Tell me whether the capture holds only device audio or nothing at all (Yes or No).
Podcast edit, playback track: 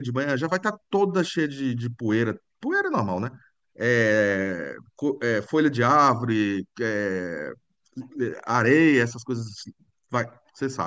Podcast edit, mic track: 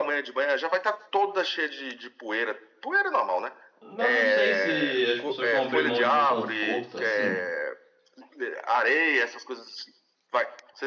No